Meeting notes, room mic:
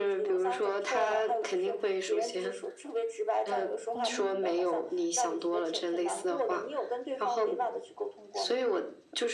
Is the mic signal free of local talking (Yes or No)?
No